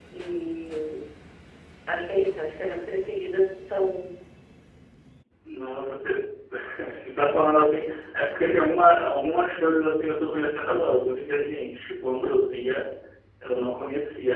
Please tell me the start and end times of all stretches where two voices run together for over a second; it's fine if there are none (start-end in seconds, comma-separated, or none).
none